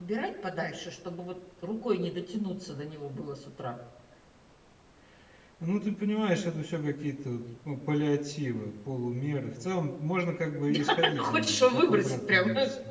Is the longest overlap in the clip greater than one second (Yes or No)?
Yes